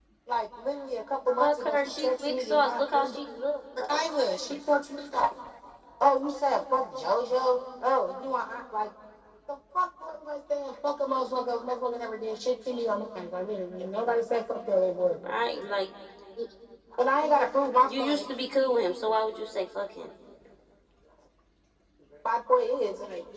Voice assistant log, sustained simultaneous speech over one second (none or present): present